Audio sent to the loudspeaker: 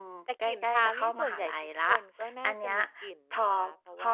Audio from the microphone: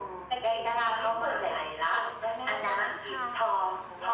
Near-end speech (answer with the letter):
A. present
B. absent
A